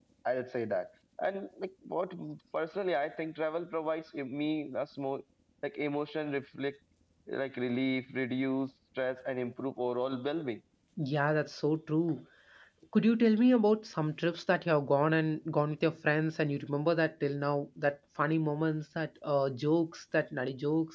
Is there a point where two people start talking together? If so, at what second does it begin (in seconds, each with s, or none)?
none